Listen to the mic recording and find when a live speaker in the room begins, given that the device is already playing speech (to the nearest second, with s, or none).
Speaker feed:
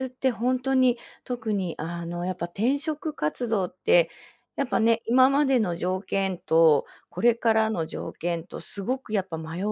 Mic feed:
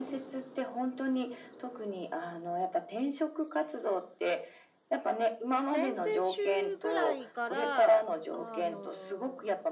6 s